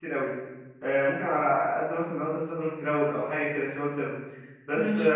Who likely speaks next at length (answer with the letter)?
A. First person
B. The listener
A